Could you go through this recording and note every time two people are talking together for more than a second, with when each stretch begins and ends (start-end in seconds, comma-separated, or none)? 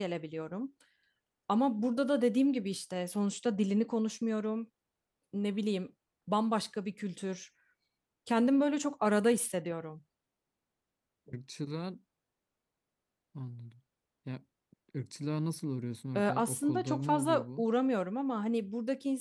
16.2-17.6